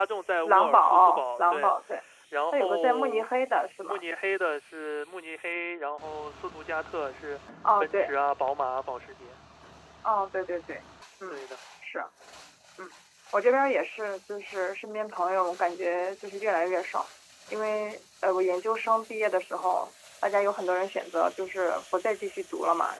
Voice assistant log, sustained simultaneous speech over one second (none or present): present